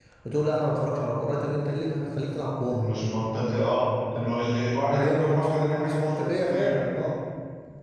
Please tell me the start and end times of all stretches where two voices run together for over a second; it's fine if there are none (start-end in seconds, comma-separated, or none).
4.9-6.7